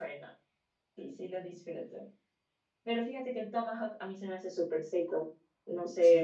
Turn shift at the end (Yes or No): Yes